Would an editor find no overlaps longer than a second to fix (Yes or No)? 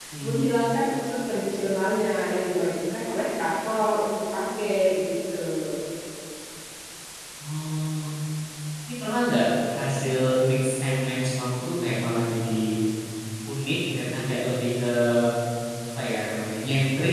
Yes